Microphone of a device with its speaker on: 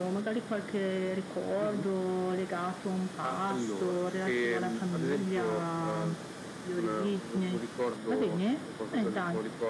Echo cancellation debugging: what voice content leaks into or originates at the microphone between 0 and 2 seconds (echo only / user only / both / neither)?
echo only